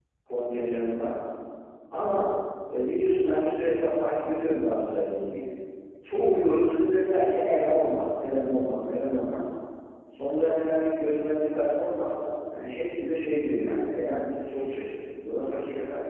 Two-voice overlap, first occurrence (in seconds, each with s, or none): none